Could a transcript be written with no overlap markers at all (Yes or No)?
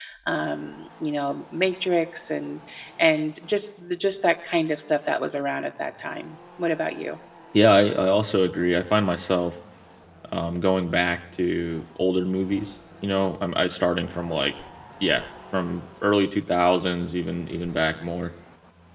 Yes